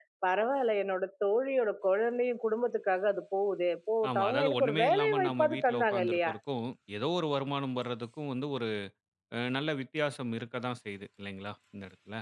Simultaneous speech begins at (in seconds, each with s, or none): 4.0 s